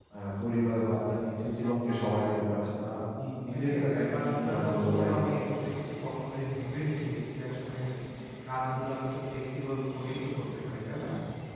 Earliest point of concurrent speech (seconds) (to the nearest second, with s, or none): 4 s